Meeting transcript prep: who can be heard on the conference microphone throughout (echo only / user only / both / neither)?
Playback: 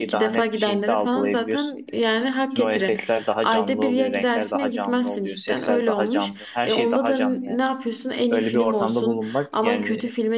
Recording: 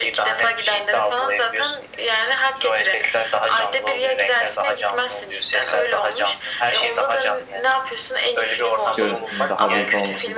both